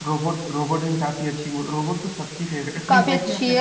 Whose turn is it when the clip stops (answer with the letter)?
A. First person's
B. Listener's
B